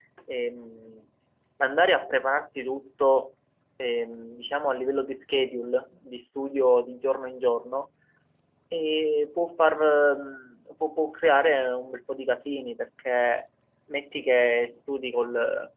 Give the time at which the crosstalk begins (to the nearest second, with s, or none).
none